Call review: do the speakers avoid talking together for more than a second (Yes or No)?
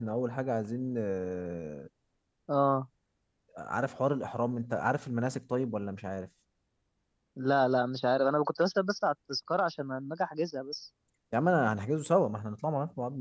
Yes